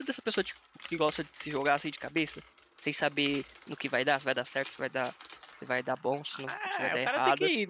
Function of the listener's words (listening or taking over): taking over